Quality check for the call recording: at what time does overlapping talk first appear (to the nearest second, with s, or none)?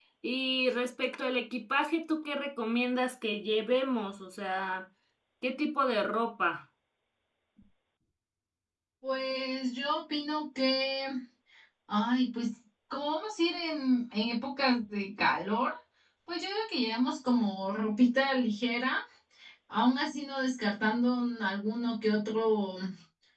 none